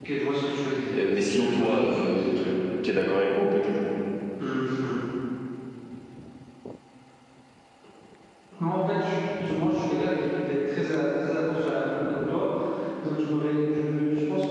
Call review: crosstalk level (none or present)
present